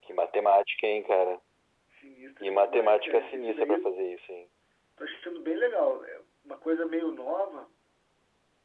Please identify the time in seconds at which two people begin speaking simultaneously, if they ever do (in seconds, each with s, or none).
2.4 s